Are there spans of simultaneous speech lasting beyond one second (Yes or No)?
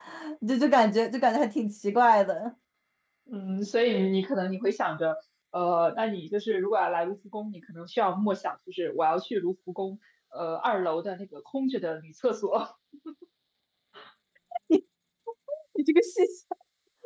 No